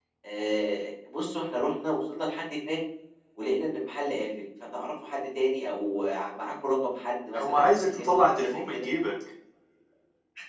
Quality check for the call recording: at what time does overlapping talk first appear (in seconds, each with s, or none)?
7.3 s